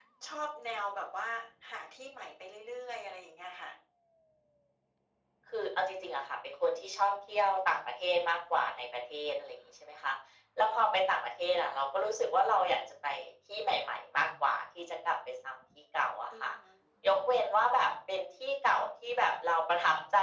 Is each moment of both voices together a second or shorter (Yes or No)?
Yes